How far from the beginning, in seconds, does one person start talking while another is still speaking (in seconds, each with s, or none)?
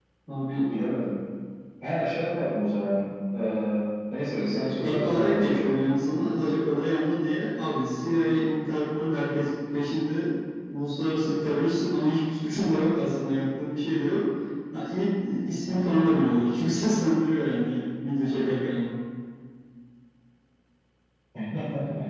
4.3 s